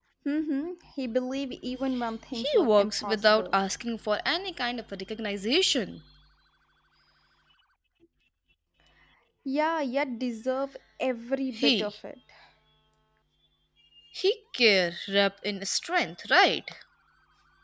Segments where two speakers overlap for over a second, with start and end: 2.3-3.6

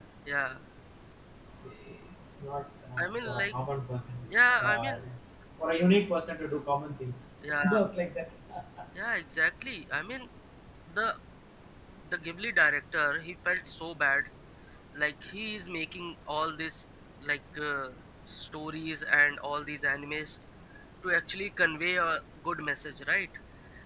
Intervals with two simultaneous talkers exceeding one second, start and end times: none

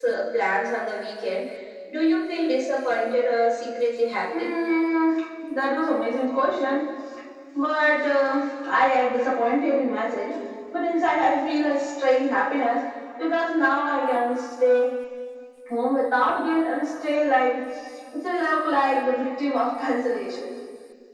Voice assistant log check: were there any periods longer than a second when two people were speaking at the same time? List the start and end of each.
none

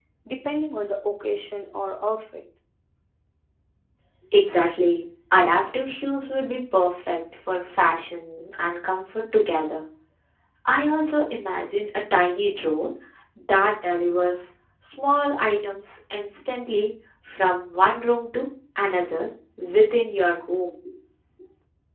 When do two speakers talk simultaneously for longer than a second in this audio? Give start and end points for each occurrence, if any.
none

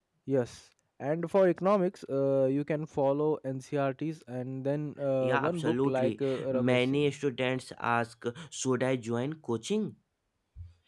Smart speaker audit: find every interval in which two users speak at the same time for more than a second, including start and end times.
5.2-7.1

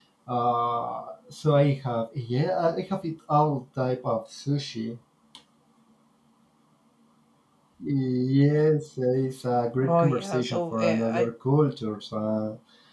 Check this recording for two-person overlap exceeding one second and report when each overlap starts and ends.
9.8-11.2

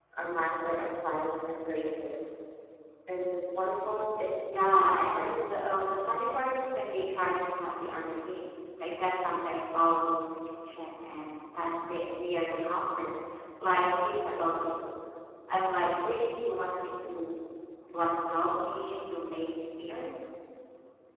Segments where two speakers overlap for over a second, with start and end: none

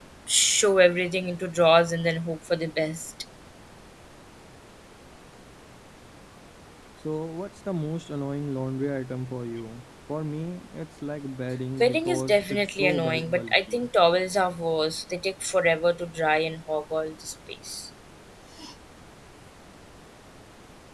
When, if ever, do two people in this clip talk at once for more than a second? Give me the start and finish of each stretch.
11.8-13.9

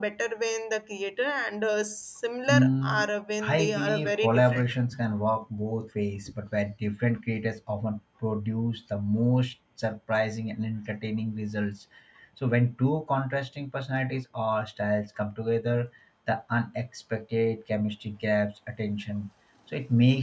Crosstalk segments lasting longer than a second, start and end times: 3.5-4.7

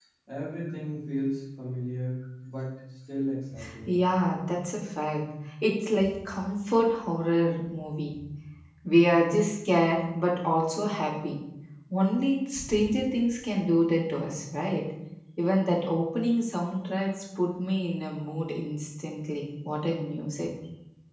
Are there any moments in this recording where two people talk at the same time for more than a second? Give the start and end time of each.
none

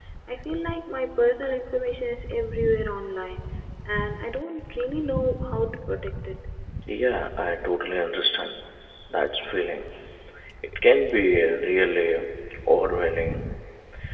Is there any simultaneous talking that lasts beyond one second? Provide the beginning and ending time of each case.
none

